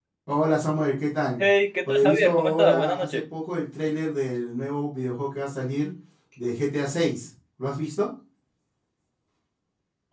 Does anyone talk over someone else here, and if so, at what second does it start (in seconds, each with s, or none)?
1.9 s